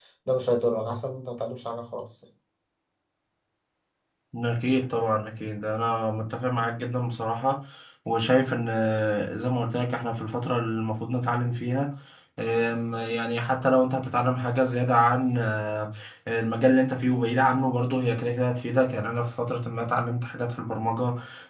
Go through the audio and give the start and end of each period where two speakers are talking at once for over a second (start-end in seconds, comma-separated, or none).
none